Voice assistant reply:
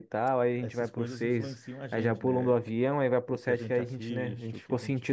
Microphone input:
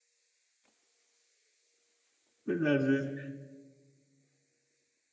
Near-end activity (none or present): present